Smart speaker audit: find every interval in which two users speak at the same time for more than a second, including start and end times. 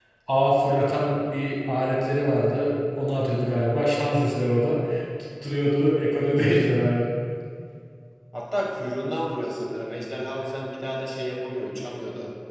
none

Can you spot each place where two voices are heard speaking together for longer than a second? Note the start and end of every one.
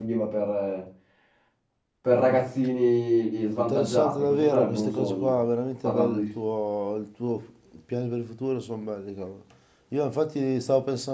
3.6-5.4

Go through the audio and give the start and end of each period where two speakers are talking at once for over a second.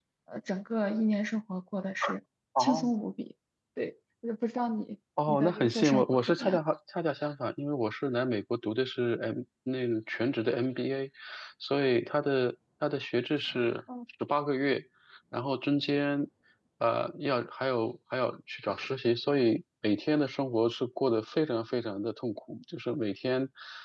5.3-6.6

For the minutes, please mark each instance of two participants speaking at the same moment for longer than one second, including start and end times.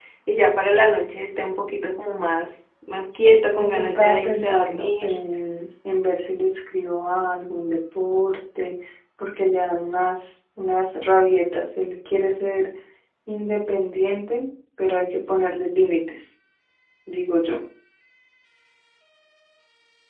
3.6-5.2

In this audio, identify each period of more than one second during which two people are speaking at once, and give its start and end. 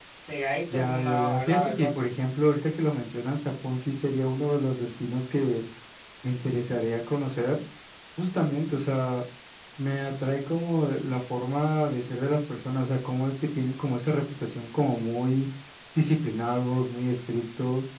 0.7-2.0

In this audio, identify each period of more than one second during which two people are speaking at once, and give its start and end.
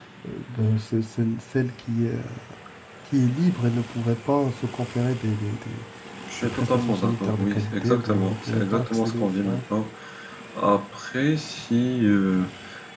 6.4-9.6

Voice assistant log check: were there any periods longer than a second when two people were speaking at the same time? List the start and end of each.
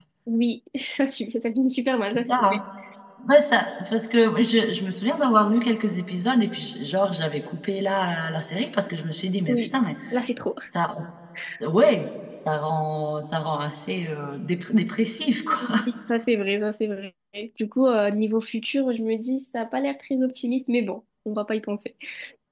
none

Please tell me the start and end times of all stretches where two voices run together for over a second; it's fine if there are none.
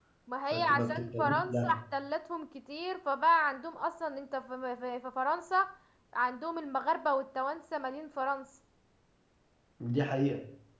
0.5-1.8

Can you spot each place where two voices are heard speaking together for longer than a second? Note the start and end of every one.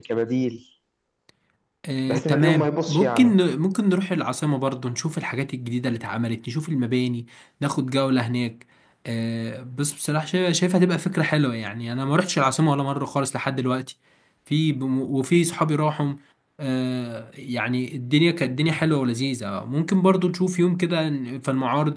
2.1-3.3

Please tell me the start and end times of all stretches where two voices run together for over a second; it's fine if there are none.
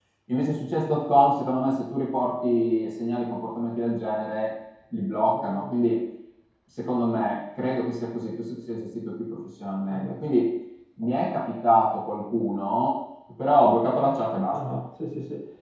none

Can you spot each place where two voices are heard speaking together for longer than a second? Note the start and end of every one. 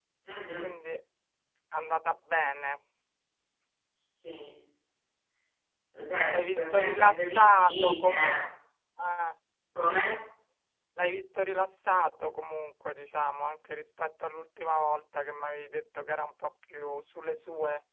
6.3-8.4

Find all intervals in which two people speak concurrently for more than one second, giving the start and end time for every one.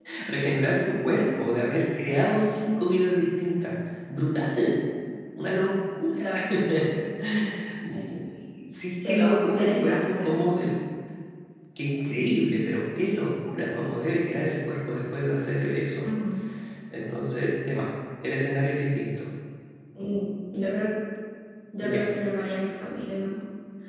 9.1-10.3

